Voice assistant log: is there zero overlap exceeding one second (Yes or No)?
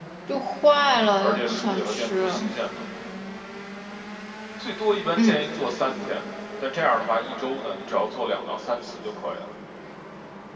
No